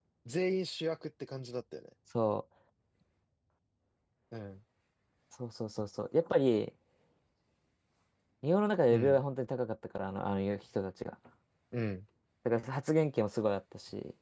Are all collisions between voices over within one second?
Yes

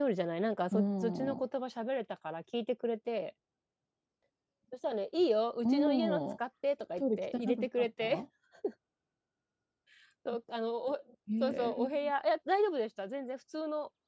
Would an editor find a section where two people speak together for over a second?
Yes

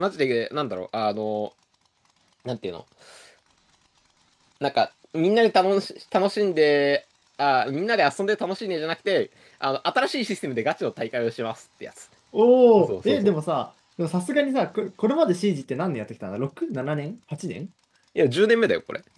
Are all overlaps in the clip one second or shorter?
Yes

